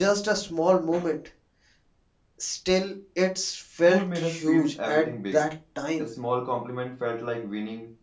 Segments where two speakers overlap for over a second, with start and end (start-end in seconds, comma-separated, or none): 3.9-5.4